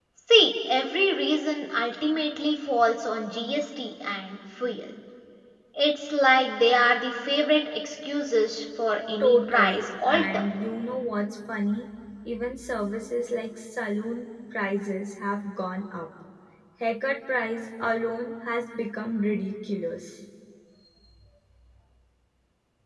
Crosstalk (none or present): present